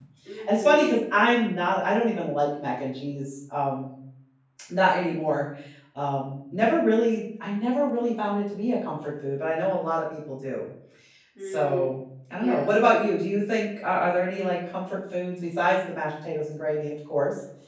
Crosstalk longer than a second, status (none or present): none